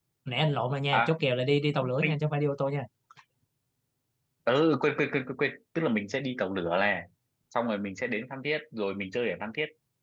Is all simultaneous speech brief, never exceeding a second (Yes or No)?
Yes